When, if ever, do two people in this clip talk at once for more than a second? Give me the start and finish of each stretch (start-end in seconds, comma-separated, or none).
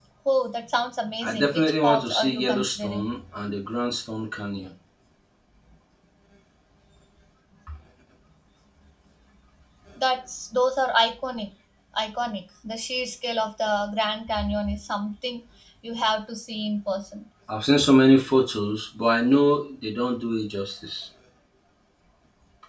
1.2-3.1